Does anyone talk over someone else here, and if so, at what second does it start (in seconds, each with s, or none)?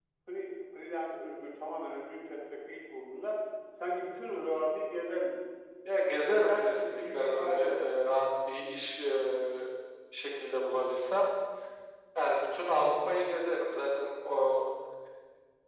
6.3 s